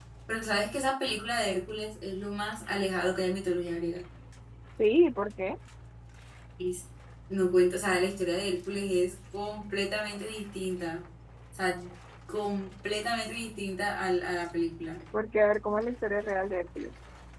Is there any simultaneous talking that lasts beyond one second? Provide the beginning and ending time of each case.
none

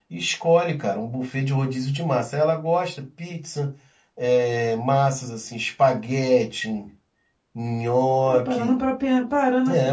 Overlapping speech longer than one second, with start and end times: none

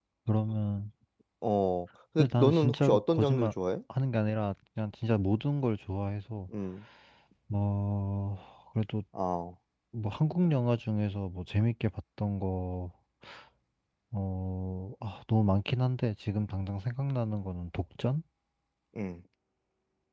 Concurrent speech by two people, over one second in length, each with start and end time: 2.2-3.5

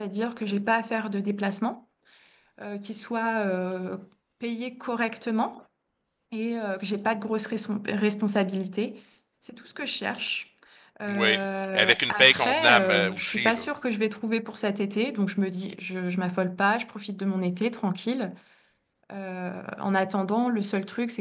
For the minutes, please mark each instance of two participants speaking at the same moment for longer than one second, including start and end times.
11.8-13.6

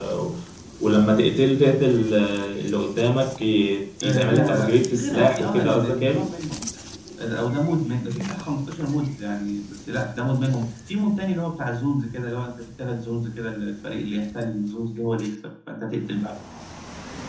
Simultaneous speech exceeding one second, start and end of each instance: 4.0-6.3

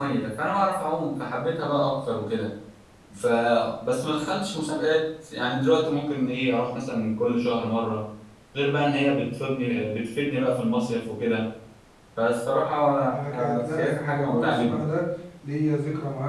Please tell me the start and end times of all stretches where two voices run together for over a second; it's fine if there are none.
13.3-14.8

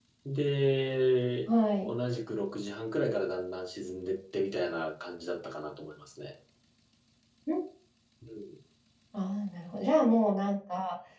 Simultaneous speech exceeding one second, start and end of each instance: none

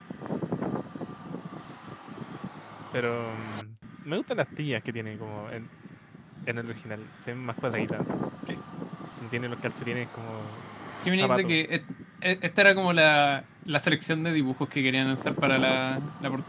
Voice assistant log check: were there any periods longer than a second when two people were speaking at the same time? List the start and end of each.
none

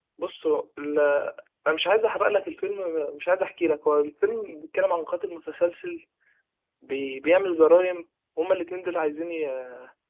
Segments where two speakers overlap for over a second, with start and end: none

